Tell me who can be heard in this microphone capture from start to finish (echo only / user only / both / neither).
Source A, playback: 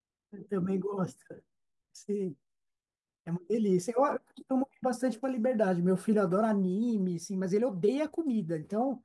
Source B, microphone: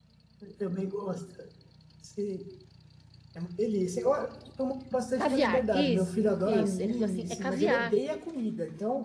both